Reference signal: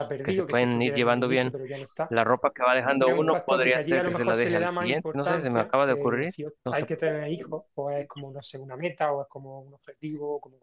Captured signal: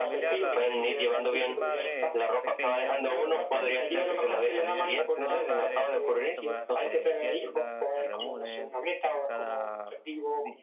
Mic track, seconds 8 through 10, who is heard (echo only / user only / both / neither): both